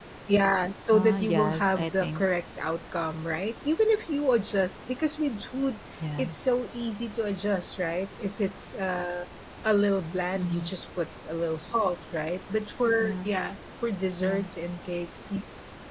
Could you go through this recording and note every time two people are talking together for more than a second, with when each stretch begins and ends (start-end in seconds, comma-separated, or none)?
0.9-2.2